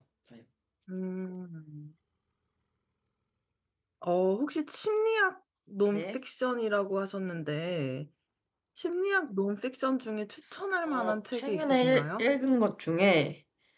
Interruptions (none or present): present